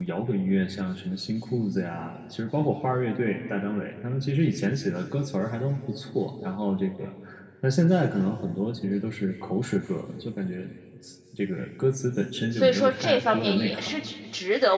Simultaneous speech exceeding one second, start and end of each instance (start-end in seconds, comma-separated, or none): 12.5-13.9